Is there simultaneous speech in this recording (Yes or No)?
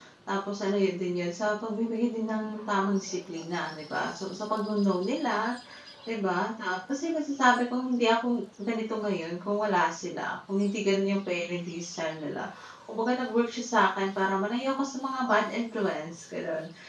No